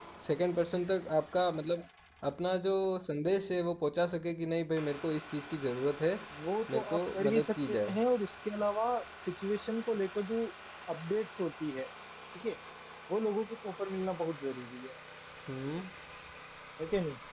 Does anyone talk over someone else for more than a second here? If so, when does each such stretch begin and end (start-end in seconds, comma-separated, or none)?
6.7-8.0